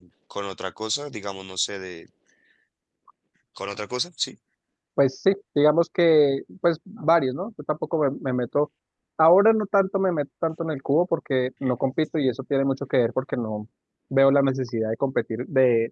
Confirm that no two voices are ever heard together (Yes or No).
Yes